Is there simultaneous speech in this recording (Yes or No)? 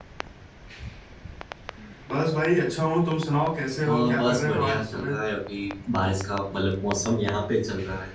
Yes